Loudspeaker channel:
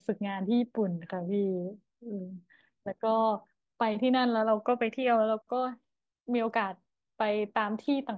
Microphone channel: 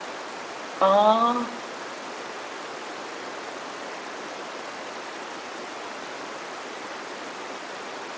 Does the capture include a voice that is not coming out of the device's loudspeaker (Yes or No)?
Yes